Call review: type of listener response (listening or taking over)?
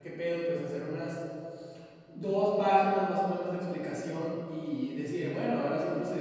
listening